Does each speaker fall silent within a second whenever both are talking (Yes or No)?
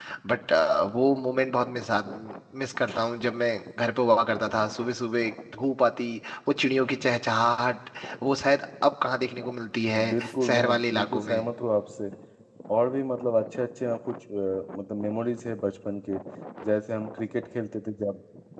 No